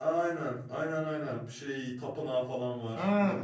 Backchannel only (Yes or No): No